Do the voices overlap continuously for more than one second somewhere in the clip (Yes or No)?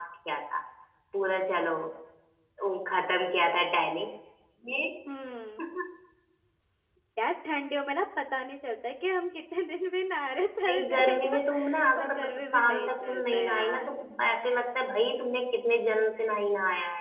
Yes